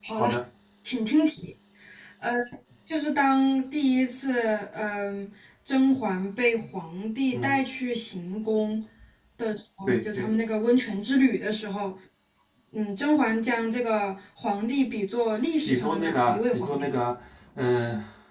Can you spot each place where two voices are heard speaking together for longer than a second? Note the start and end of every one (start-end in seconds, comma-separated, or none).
15.7-16.9